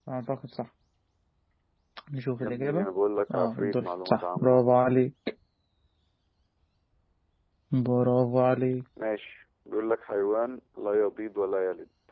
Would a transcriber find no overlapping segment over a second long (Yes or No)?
No